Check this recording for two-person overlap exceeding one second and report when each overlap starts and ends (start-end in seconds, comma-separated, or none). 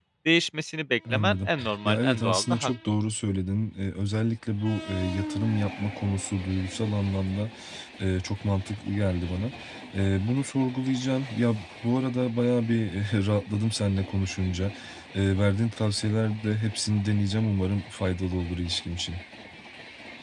1.1-2.7